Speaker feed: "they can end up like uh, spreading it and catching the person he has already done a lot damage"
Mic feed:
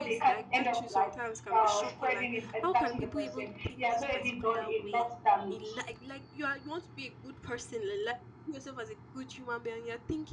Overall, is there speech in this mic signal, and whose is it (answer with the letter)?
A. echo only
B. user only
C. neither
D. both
D